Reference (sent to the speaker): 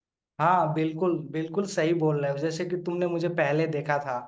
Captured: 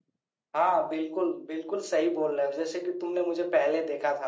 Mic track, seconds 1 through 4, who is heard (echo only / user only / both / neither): echo only